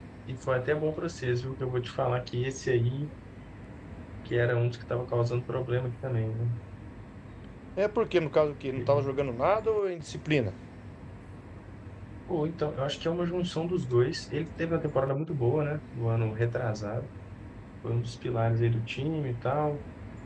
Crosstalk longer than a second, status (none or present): none